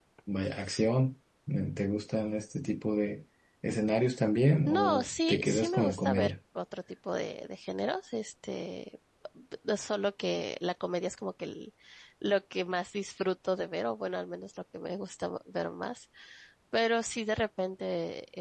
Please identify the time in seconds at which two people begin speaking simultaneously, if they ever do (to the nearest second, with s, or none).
5 s